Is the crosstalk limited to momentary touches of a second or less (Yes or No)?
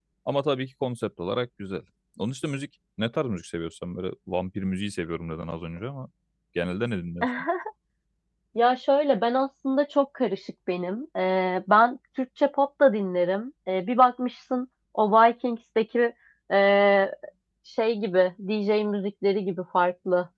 Yes